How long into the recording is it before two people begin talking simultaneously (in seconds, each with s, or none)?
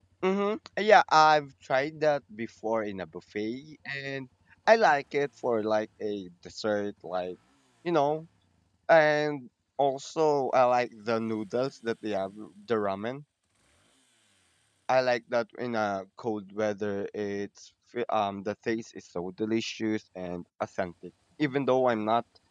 none